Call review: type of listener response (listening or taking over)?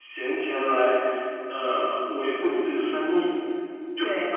taking over